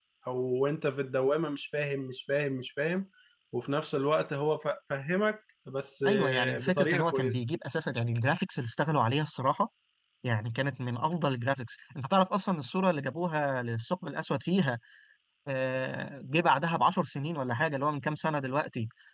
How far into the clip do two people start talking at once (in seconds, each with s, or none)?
6.0 s